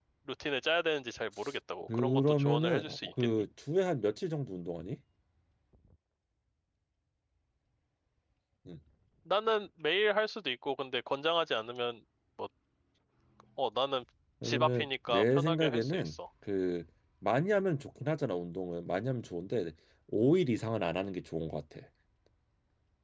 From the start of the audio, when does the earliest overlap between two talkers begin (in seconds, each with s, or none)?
1.9 s